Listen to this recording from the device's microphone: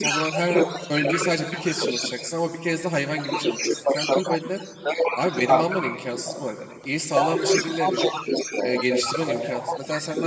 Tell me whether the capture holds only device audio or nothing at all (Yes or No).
No